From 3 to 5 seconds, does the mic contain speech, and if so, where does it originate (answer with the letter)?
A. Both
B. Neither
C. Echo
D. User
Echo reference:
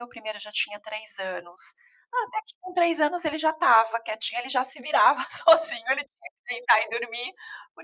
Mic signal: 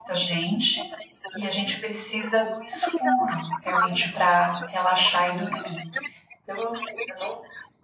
A